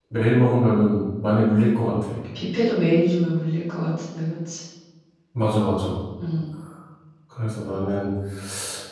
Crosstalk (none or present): none